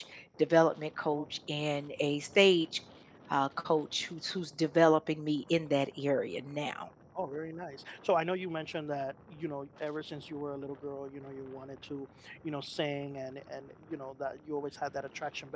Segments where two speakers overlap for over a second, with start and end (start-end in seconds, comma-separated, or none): none